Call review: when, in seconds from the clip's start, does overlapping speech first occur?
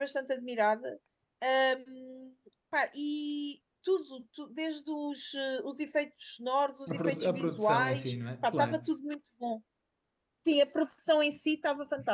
6.9 s

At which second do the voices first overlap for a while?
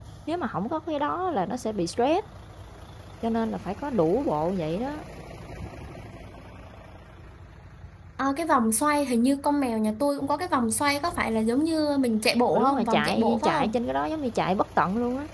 12.5 s

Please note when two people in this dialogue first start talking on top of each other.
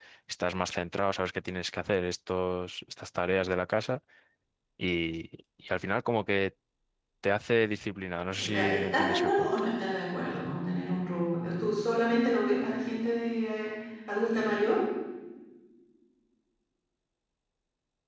8.4 s

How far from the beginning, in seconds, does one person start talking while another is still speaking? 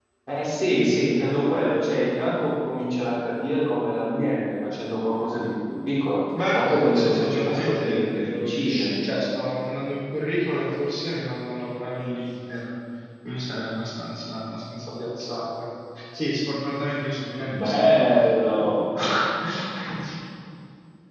6.5 s

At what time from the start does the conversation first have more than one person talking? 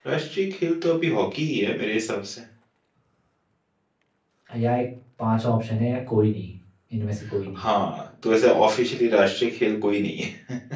none

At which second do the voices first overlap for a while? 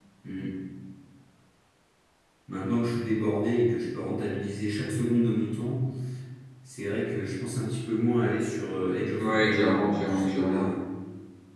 9.2 s

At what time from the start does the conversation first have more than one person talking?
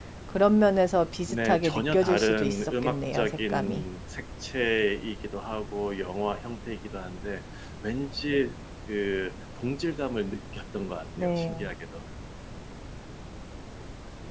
1.3 s

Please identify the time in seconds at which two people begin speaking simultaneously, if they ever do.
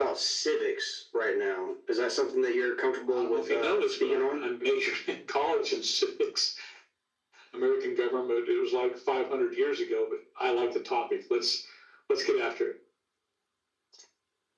3.1 s

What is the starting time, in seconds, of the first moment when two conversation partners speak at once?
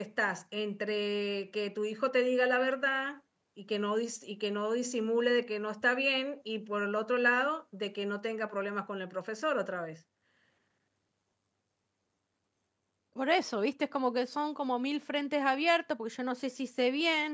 none

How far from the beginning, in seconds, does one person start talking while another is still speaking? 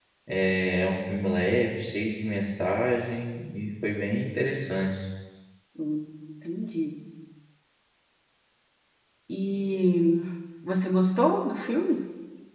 none

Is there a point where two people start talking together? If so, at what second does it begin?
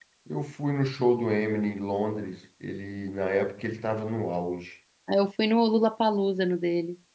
none

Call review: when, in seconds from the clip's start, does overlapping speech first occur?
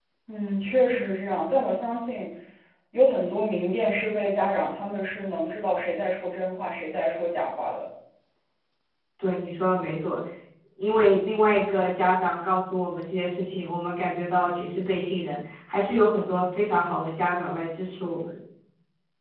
none

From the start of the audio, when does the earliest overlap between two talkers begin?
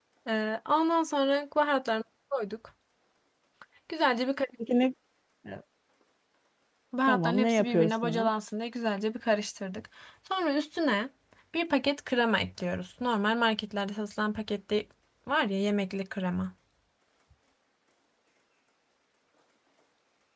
7.1 s

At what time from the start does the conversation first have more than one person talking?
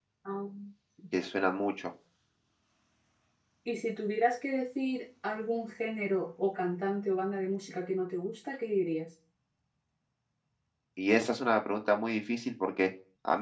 none

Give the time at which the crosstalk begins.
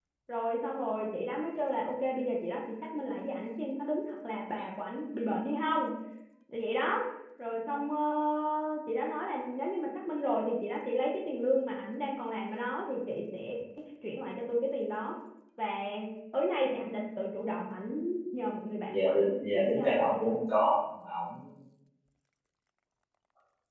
18.9 s

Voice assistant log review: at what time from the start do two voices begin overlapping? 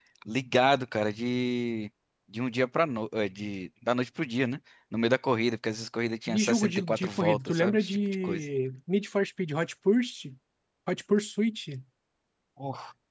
6.3 s

